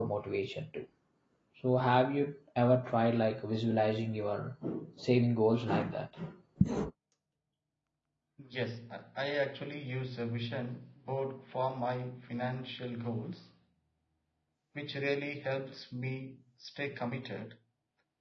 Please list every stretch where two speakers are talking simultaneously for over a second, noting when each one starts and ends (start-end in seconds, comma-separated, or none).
none